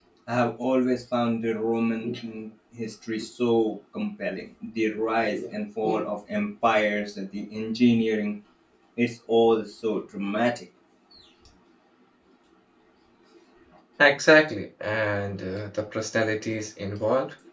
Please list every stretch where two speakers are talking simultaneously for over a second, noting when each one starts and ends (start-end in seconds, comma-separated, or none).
none